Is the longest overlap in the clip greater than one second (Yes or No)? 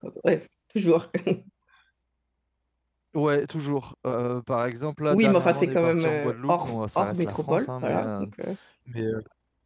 Yes